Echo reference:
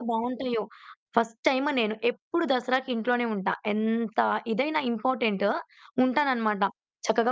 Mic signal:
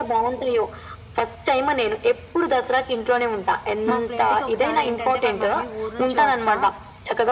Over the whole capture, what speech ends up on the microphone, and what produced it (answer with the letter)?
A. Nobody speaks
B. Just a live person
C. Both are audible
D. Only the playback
C